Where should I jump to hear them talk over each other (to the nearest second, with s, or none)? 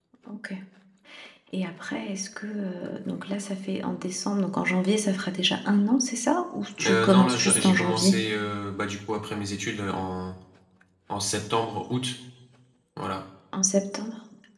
7 s